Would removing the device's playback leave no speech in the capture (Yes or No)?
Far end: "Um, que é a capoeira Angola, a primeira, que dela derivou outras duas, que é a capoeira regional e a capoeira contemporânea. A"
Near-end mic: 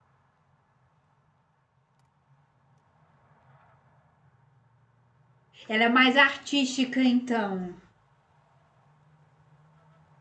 No